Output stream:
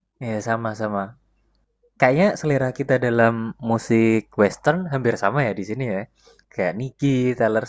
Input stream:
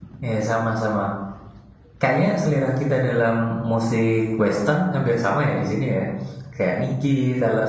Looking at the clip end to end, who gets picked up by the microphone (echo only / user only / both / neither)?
echo only